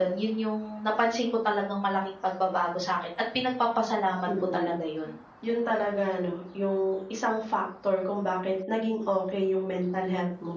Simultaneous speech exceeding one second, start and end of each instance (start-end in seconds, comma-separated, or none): none